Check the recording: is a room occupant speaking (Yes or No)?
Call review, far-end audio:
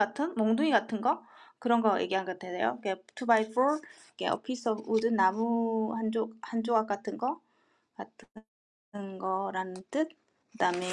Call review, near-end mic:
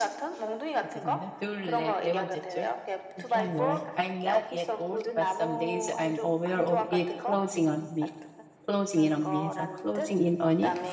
Yes